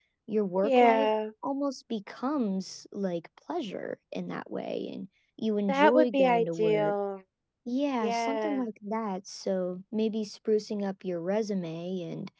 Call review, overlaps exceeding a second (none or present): present